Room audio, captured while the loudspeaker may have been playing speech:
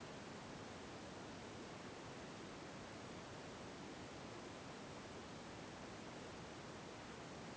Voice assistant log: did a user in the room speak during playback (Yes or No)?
No